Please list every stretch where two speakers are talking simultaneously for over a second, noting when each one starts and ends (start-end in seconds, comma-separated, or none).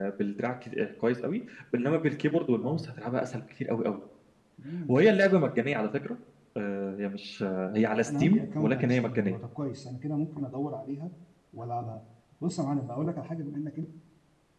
8.0-9.4